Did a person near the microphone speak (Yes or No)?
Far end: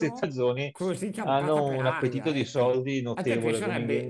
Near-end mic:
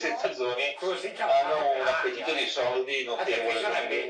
No